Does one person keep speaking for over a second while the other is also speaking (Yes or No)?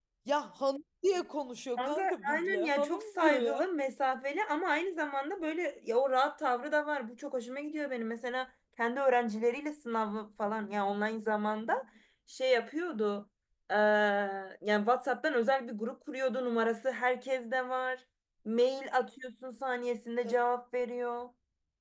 Yes